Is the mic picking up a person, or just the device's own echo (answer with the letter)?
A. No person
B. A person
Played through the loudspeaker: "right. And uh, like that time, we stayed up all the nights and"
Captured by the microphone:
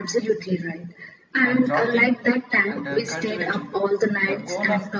B